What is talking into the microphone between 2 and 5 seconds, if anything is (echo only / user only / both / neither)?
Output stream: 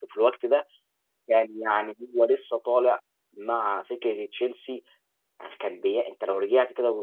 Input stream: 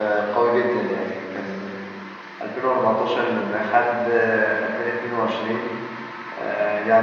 user only